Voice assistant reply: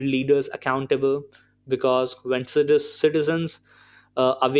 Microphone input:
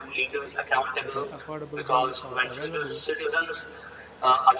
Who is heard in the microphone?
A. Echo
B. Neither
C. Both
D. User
C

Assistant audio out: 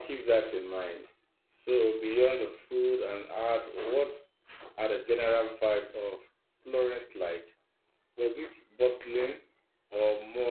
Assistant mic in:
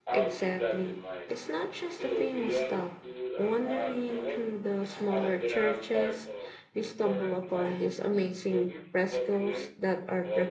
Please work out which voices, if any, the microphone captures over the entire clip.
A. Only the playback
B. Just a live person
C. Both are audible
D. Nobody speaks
C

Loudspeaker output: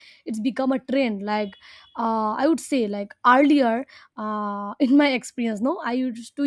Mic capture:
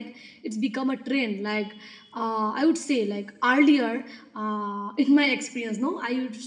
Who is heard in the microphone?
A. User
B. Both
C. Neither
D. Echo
D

